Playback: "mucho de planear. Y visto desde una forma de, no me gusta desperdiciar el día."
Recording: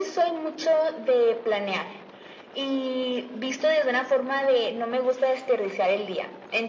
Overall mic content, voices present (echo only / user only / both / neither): echo only